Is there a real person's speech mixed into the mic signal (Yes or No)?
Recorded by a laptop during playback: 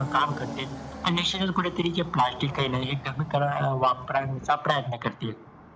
No